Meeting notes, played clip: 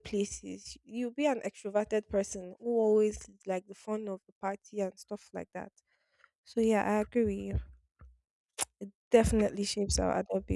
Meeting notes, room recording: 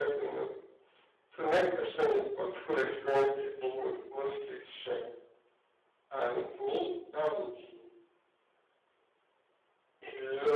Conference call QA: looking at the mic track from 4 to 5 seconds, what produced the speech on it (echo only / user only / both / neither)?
user only